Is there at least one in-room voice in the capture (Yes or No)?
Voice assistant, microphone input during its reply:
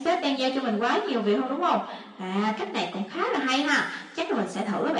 No